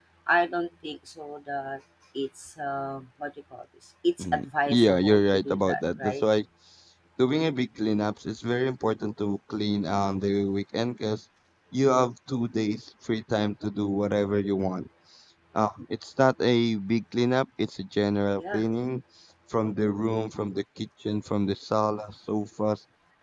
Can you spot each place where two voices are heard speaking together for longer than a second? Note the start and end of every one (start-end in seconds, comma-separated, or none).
4.7-6.2